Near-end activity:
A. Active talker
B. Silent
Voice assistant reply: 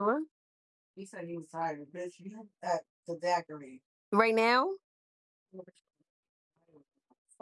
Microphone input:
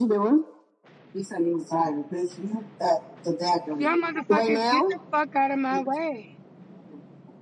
A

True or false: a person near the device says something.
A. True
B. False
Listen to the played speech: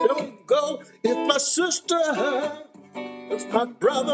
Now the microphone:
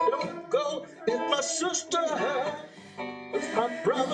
A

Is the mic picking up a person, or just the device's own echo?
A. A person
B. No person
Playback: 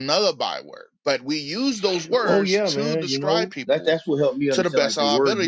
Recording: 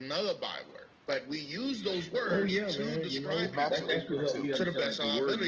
A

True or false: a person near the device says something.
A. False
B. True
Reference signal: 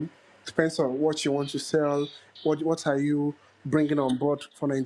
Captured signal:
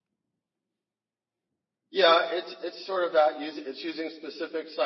B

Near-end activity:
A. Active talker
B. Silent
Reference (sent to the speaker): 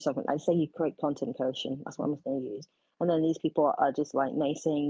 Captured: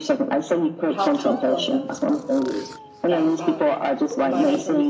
A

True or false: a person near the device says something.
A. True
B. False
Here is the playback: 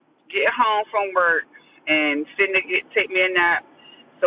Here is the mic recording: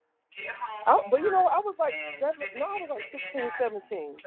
A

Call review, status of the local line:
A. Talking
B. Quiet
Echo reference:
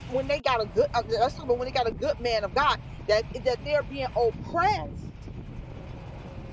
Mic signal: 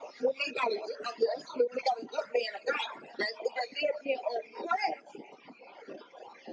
B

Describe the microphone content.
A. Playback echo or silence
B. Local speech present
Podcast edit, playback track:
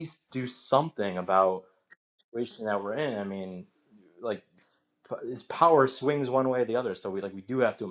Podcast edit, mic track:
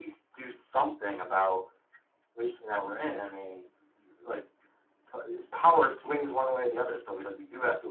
A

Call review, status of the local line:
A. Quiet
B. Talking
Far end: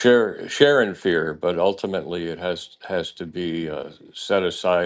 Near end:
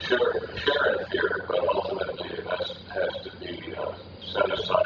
A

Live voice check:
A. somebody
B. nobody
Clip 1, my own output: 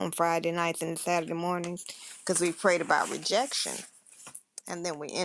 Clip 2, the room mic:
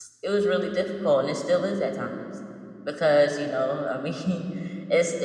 A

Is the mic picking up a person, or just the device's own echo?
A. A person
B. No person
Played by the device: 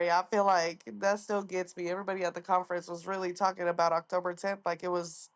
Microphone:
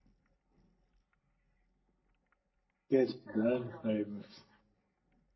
A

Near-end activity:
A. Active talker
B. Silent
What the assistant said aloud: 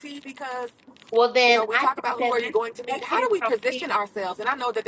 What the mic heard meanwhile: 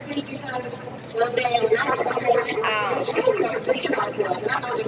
A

